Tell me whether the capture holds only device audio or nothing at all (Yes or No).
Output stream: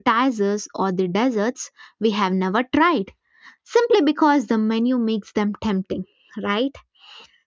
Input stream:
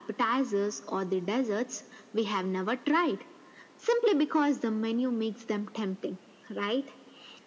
Yes